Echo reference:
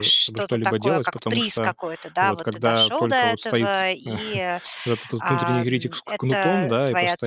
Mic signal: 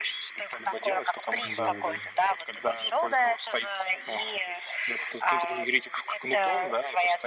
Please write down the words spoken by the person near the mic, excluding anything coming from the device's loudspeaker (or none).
Да, да.